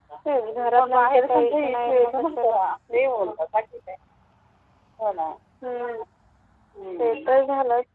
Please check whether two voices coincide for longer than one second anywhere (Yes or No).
Yes